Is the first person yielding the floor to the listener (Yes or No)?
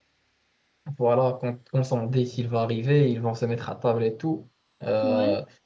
No